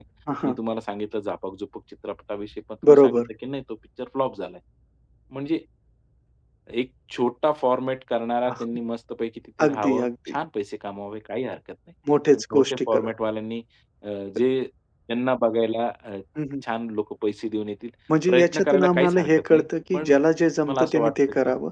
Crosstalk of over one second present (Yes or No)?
Yes